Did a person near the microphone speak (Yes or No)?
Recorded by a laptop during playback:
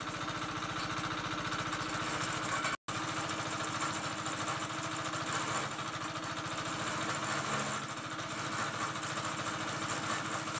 No